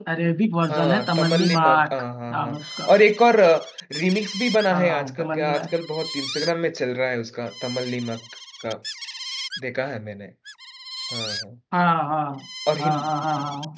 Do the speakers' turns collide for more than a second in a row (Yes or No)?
Yes